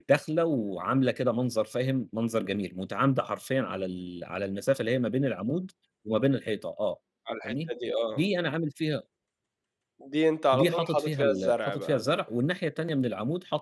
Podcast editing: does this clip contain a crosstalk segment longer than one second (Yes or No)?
Yes